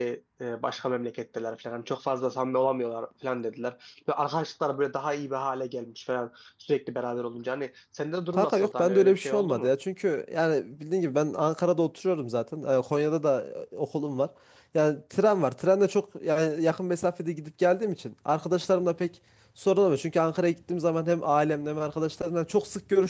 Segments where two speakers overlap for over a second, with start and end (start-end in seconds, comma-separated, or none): 8.3-9.7